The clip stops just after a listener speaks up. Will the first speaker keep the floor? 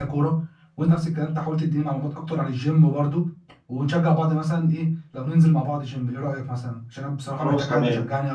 No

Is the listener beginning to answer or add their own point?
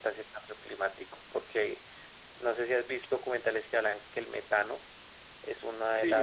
Yes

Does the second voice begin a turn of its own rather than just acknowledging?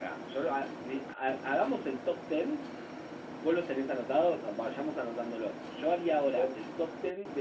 No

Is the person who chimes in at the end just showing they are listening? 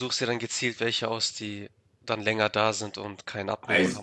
No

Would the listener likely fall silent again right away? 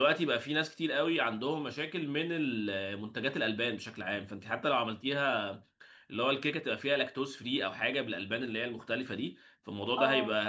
Yes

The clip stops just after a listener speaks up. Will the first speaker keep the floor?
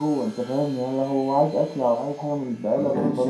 No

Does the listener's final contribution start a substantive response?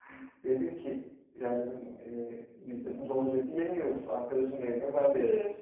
No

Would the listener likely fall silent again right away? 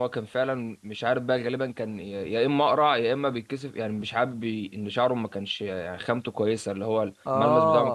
Yes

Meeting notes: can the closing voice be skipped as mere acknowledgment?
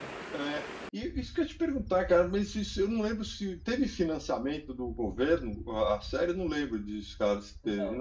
No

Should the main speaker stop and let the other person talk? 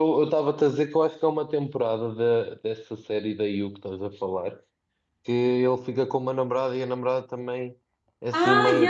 Yes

